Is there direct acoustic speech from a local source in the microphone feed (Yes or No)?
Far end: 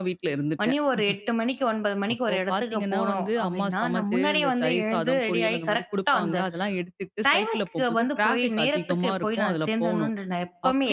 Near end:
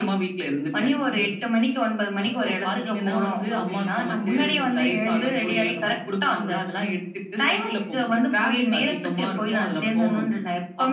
Yes